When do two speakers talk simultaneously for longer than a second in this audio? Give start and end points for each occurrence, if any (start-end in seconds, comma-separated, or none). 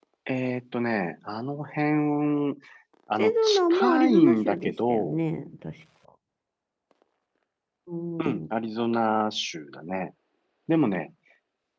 3.2-5.2